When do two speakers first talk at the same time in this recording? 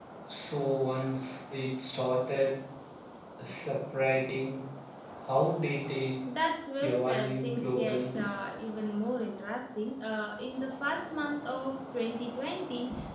6.8 s

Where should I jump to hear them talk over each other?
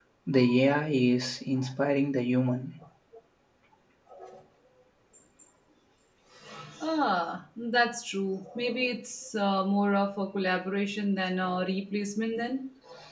none

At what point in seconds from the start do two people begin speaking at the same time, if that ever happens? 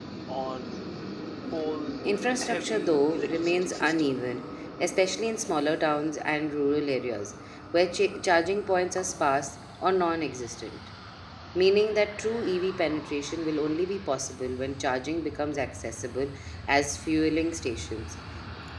2.4 s

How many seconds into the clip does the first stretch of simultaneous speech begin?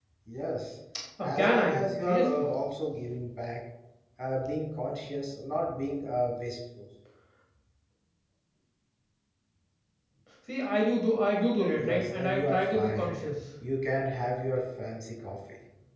1.2 s

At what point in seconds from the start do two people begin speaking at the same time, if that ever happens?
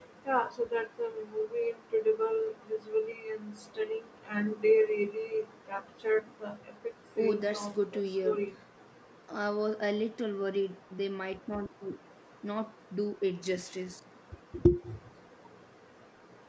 7.2 s

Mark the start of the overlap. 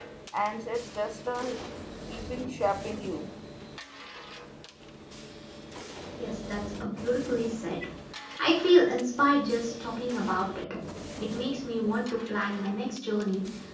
none

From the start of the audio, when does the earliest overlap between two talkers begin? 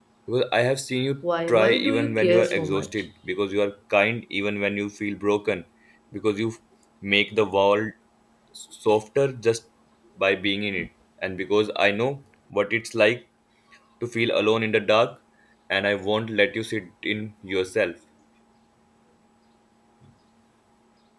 1.5 s

